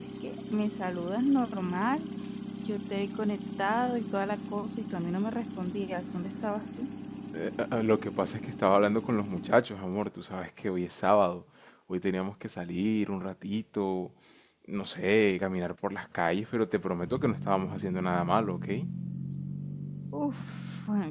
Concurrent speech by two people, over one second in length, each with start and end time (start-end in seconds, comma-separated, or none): none